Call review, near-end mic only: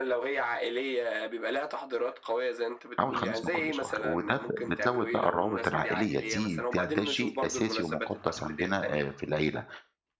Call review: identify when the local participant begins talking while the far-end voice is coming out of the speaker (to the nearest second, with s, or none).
3 s